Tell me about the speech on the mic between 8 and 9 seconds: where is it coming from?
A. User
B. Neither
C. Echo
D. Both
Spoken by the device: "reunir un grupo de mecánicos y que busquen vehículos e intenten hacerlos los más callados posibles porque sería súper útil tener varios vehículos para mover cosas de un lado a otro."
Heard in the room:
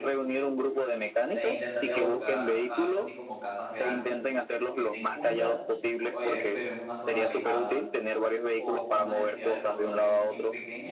D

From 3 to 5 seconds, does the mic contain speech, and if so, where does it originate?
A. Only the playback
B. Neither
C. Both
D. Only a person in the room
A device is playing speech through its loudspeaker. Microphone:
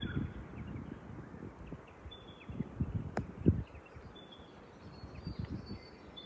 B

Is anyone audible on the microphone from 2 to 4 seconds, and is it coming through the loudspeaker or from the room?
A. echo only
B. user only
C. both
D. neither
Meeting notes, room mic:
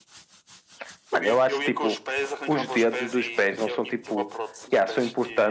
C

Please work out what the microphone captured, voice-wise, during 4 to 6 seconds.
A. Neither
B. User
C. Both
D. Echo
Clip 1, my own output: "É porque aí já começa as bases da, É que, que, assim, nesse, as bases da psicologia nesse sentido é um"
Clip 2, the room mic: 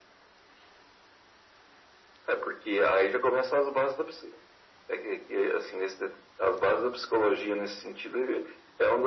D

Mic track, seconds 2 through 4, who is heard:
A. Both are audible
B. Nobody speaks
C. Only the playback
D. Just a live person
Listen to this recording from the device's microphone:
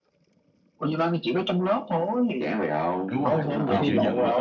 A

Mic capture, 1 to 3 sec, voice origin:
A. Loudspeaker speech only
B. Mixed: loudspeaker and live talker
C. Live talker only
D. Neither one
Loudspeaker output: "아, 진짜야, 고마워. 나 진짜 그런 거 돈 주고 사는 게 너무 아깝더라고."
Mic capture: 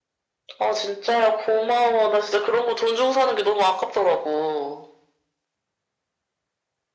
A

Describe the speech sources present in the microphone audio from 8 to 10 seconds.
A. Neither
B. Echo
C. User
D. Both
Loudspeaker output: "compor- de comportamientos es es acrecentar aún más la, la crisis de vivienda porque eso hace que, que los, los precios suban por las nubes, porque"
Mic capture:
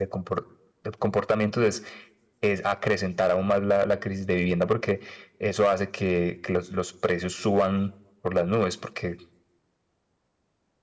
B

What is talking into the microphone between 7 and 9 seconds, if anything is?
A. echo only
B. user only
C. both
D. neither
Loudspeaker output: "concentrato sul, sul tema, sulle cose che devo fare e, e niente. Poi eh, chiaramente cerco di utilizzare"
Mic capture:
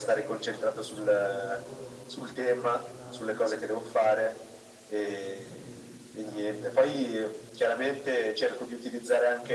C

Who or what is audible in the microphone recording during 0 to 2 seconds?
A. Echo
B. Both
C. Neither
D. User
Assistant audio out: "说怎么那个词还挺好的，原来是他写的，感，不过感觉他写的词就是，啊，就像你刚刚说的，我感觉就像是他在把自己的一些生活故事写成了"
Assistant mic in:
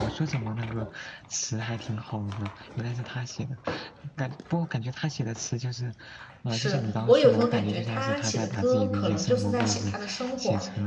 A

